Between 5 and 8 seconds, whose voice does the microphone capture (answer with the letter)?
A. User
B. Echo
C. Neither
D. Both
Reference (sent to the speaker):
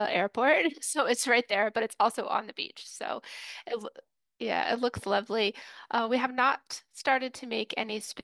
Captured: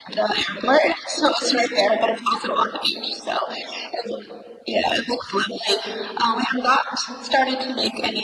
B